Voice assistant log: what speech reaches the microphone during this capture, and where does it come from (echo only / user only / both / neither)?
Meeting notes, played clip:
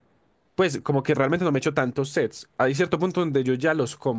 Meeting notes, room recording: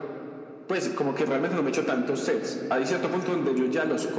echo only